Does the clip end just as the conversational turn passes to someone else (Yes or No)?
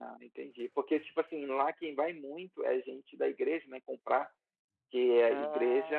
No